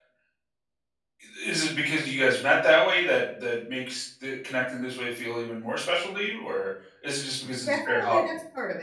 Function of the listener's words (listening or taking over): taking over